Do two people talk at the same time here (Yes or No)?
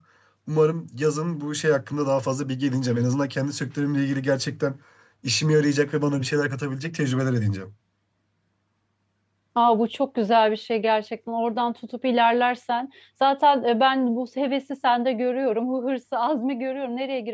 No